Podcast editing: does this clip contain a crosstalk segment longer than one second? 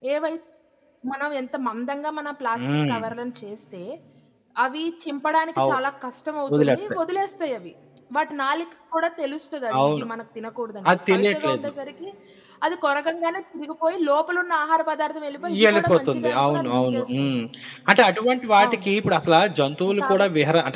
Yes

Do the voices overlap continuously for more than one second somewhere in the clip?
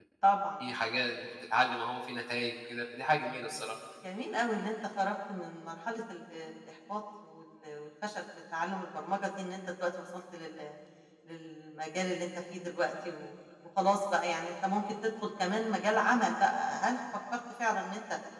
No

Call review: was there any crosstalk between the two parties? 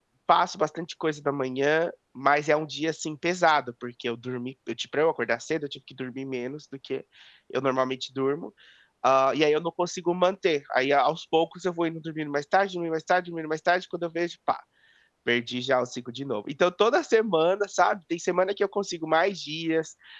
No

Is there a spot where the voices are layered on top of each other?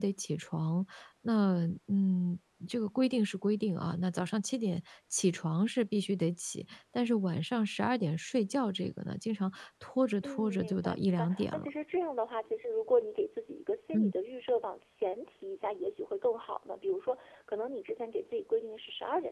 Yes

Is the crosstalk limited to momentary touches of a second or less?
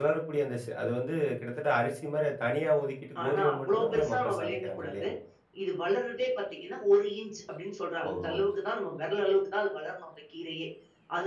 No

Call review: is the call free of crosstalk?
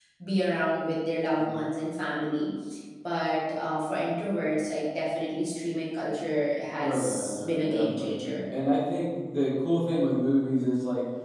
No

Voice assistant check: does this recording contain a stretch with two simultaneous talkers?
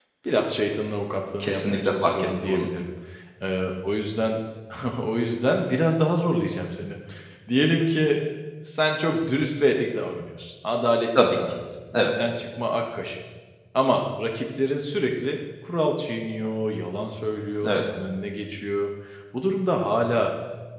Yes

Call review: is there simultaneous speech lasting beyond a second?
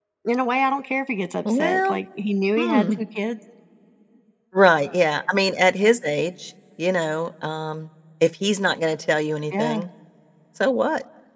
No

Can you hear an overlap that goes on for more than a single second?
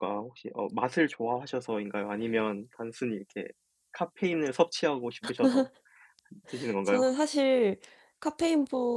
No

